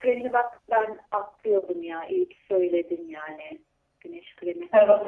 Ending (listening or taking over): taking over